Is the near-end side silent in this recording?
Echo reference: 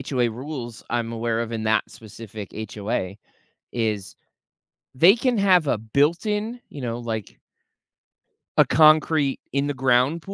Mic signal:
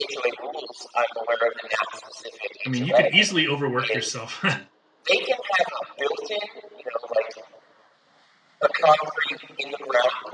No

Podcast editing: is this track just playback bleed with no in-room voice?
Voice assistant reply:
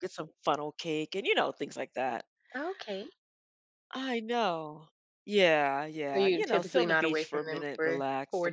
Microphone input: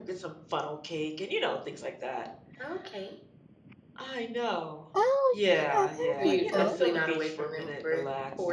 No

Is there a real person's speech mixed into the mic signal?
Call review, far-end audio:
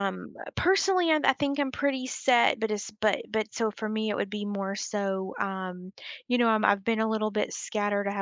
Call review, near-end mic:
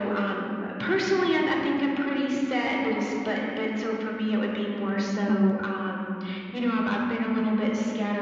Yes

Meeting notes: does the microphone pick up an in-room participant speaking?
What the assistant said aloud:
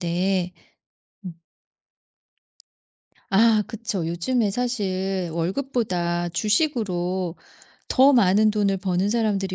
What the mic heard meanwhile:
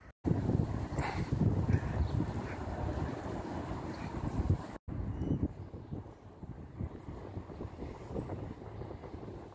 No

